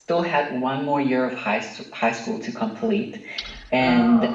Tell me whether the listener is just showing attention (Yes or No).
Yes